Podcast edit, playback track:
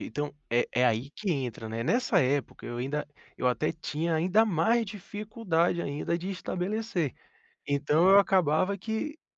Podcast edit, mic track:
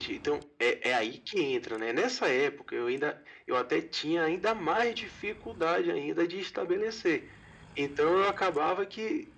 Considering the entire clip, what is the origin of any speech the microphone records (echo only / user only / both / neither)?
echo only